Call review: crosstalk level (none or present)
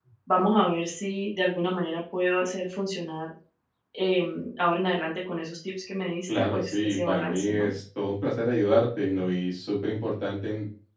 present